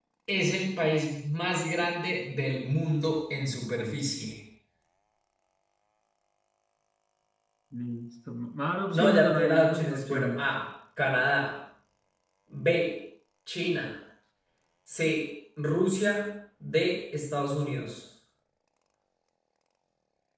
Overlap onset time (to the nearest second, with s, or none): 9 s